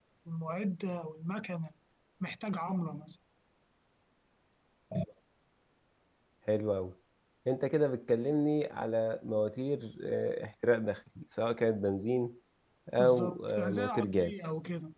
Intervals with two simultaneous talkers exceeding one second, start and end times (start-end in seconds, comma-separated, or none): 13.0-14.4